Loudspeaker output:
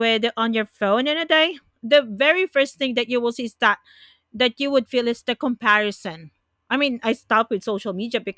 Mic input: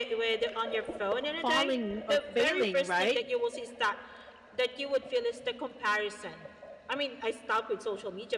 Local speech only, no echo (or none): falling or failing right